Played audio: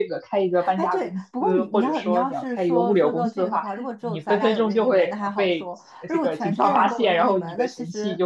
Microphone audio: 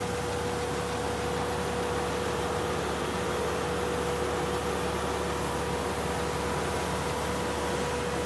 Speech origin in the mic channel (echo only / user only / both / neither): neither